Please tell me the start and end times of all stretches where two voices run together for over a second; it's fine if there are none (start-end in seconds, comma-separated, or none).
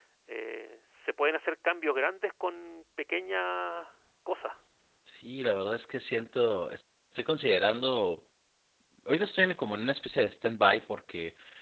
none